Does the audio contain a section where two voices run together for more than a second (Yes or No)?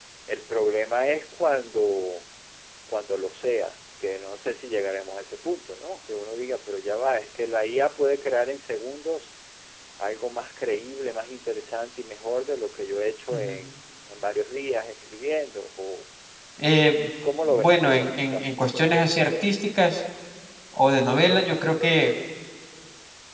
Yes